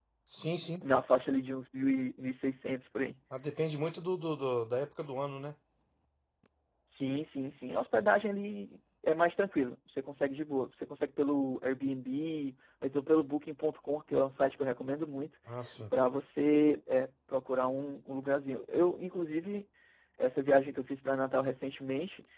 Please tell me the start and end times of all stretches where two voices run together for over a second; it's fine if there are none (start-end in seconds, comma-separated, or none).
none